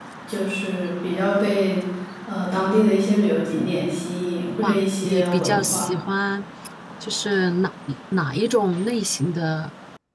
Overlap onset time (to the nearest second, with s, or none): 5 s